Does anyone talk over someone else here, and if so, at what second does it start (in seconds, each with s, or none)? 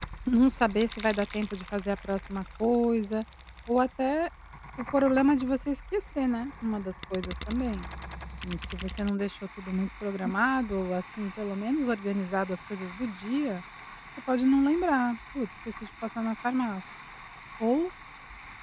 none